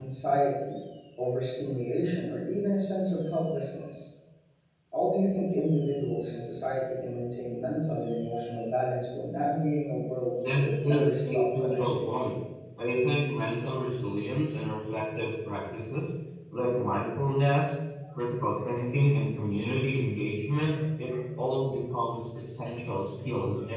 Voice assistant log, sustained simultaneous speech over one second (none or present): present